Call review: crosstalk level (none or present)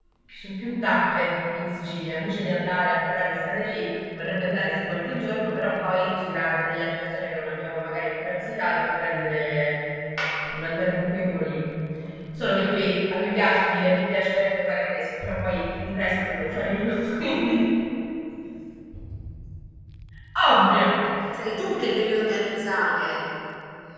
none